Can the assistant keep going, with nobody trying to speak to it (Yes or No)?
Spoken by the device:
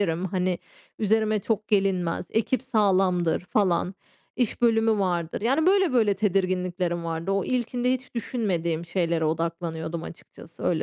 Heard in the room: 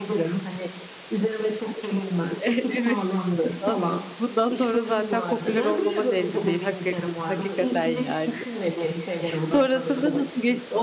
No